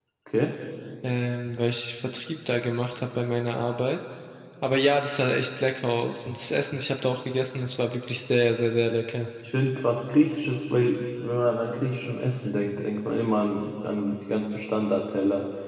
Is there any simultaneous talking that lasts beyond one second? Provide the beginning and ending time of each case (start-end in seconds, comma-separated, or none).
none